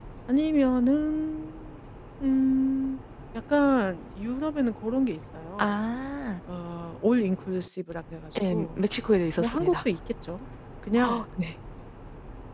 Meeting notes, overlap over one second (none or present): none